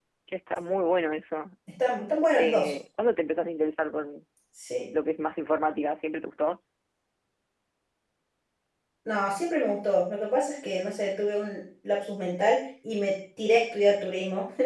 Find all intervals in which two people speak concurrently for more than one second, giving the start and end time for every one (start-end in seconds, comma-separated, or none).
none